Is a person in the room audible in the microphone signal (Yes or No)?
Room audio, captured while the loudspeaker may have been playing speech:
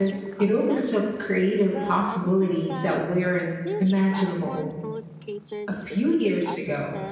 Yes